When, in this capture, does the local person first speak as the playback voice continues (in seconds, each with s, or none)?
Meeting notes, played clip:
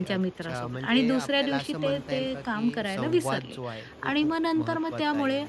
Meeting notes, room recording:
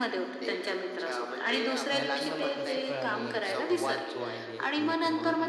1.9 s